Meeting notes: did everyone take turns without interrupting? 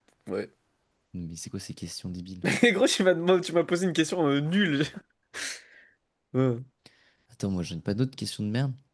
Yes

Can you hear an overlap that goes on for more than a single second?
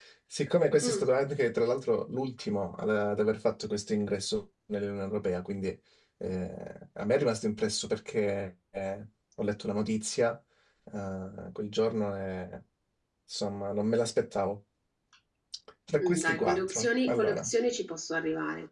Yes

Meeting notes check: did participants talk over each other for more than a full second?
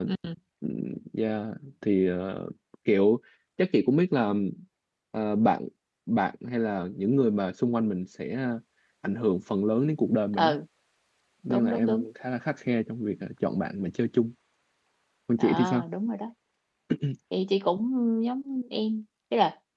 No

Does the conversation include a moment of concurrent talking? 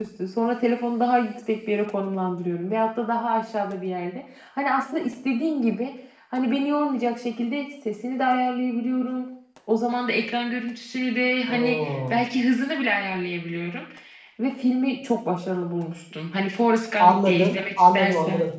Yes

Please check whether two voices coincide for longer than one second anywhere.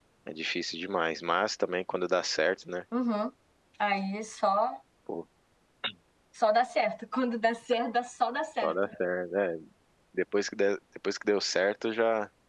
No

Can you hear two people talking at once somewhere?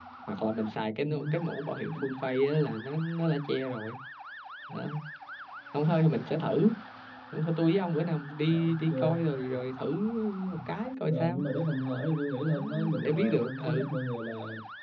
Yes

